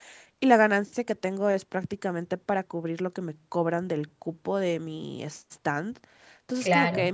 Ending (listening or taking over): listening